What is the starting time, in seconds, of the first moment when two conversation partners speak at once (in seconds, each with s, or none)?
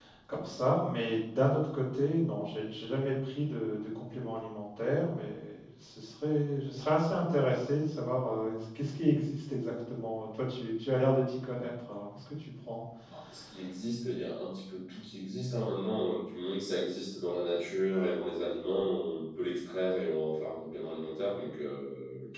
none